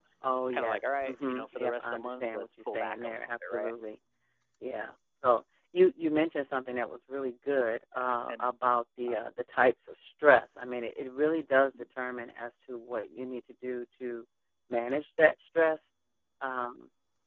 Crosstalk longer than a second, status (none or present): present